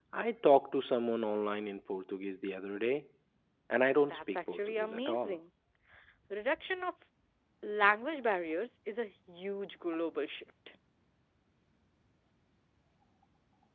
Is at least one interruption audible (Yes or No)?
Yes